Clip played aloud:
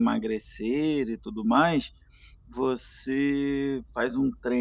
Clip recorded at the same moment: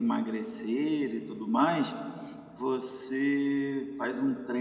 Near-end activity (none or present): none